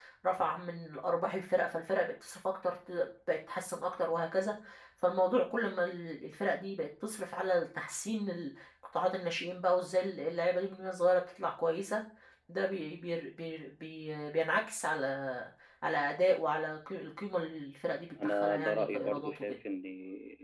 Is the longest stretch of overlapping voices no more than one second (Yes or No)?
No